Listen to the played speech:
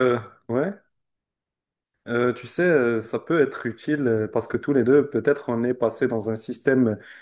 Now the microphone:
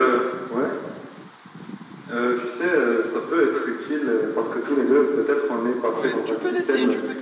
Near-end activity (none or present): present